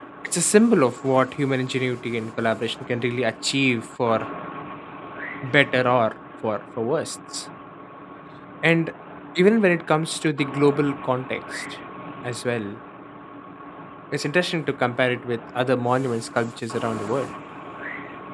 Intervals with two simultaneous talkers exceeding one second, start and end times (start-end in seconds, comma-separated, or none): none